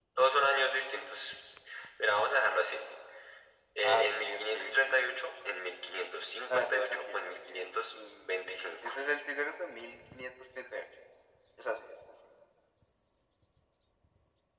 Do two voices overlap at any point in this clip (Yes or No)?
Yes